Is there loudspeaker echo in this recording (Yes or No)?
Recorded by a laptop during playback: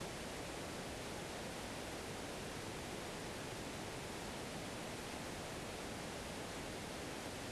No